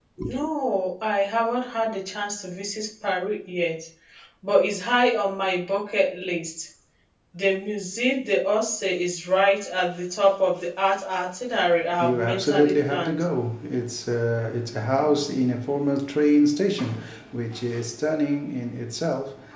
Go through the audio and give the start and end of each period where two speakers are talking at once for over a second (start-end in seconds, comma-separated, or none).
12.0-13.2